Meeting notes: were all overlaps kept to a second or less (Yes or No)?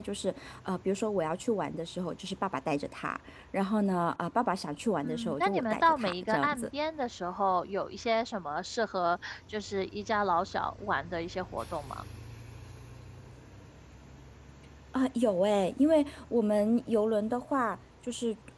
No